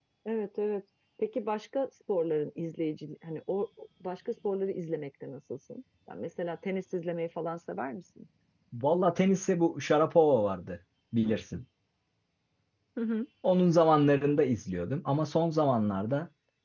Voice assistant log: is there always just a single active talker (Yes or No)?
Yes